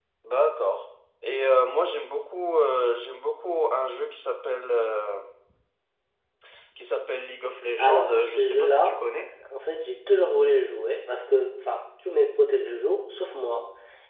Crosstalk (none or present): present